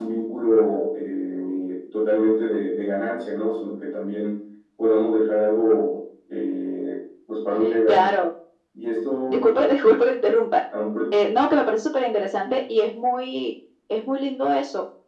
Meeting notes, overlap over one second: none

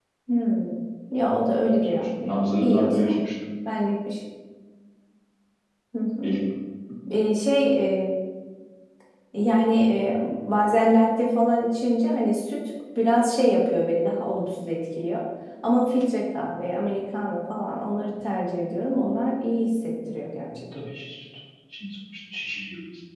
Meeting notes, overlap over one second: present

